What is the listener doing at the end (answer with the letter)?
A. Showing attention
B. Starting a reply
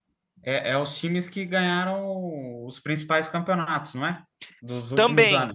B